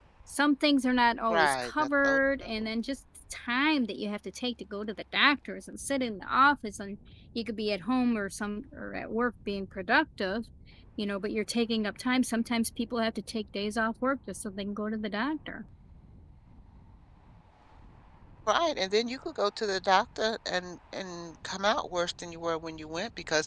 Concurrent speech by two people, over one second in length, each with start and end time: 1.3-2.7

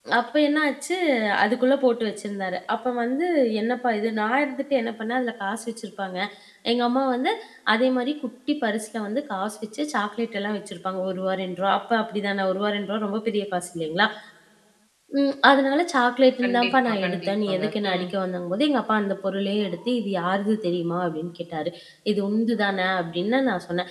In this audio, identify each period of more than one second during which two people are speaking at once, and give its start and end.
16.4-18.1

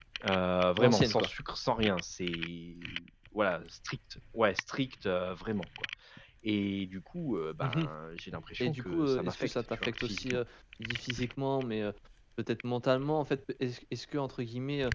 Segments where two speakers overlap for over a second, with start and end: 8.6-10.4

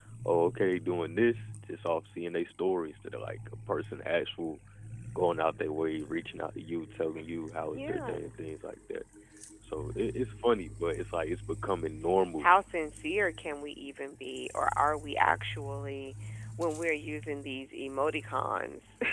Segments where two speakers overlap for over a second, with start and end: none

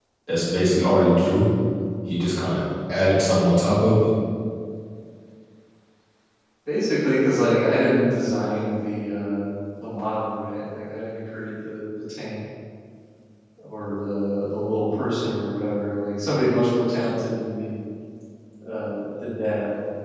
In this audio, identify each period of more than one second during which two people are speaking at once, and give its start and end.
none

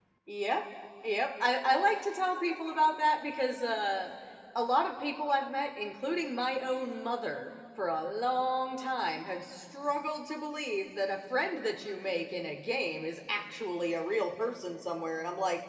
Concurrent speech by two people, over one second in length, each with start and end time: none

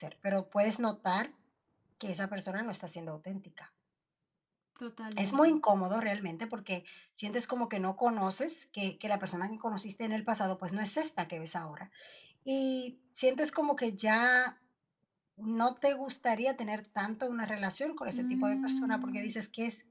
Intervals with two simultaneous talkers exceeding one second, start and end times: 18.1-19.3

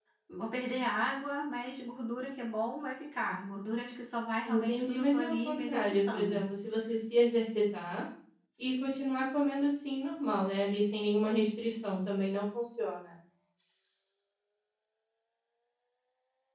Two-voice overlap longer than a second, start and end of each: 4.4-6.4

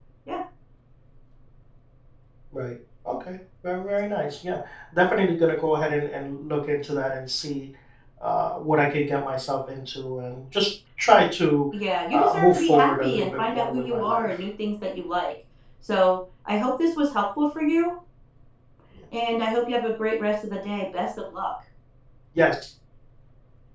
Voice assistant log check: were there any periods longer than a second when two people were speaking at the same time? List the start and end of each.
12.1-14.3

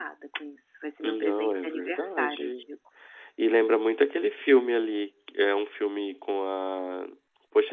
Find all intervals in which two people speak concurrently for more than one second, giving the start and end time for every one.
1.0-2.6

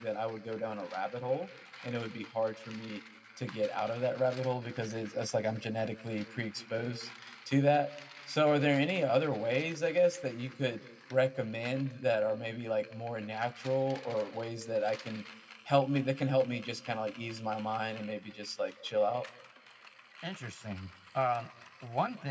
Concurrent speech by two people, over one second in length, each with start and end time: none

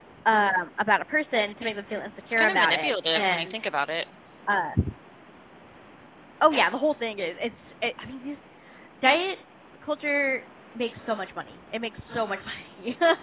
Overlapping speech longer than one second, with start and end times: 2.3-3.5

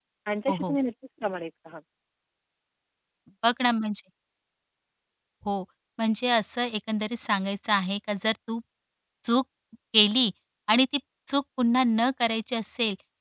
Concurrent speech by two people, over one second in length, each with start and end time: none

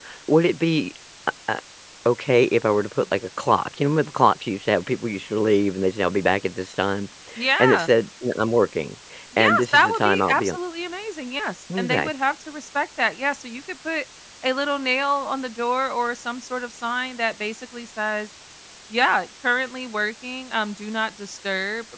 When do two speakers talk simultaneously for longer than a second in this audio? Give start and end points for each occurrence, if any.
9.4-10.6

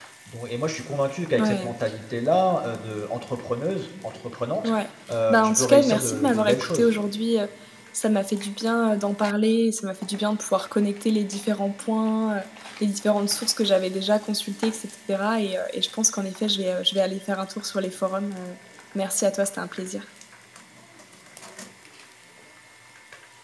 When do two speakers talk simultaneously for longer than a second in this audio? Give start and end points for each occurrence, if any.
5.3-6.9

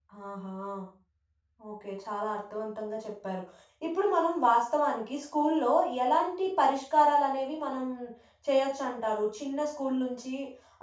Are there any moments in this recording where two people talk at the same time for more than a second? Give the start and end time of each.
none

